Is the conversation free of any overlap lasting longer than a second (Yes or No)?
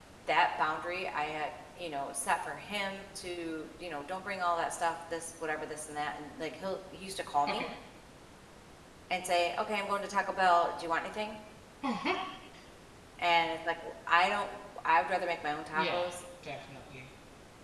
Yes